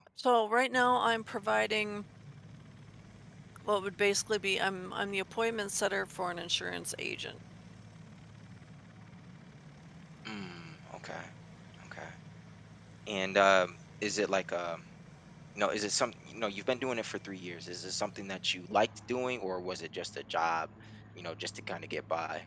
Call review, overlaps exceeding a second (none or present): none